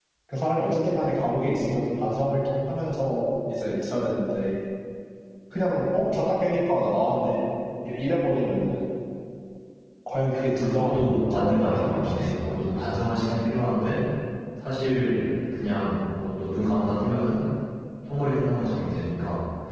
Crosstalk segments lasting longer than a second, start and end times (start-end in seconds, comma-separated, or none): 10.6-12.5